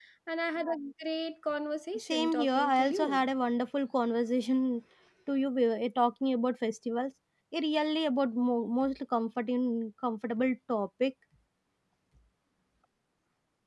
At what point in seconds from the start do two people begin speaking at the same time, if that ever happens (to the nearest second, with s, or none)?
2 s